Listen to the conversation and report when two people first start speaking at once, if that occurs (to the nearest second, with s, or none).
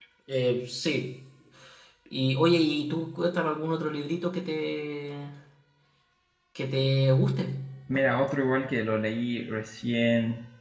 none